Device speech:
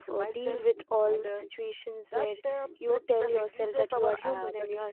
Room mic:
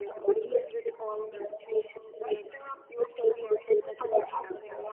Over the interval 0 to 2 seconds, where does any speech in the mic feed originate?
echo only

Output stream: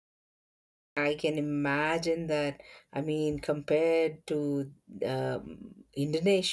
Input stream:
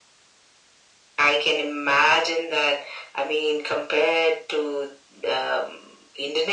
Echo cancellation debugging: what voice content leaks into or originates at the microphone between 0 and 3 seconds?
echo only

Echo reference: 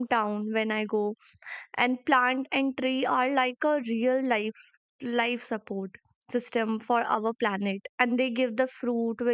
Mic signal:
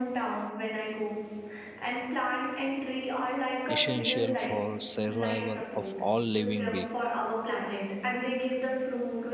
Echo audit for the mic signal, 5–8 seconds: both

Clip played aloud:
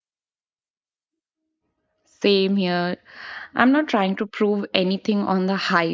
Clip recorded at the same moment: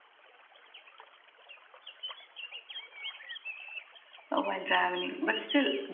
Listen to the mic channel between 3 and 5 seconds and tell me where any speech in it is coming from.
user only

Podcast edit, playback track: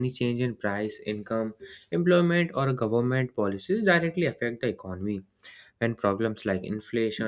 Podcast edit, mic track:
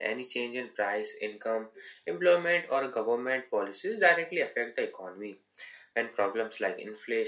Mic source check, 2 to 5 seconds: echo only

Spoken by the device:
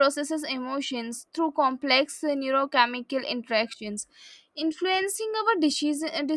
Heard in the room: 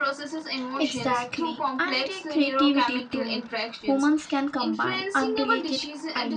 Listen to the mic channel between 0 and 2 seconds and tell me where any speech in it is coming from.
both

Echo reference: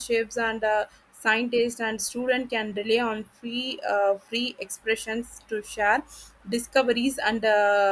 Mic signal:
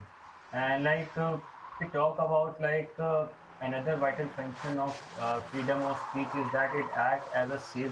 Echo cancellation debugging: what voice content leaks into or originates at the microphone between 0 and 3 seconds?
user only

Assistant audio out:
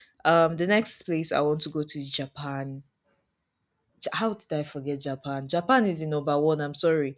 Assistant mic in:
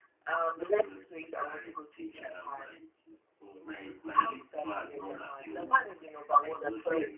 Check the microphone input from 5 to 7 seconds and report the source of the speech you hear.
both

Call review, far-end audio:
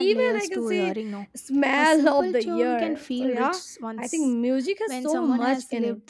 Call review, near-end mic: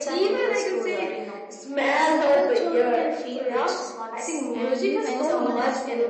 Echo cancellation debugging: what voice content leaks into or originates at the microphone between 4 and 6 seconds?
both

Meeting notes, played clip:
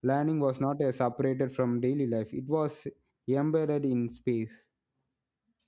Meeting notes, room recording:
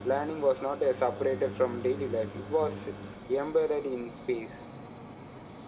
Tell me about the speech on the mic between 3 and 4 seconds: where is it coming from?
echo only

